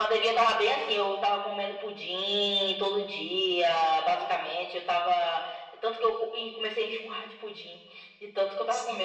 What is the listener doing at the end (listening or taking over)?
listening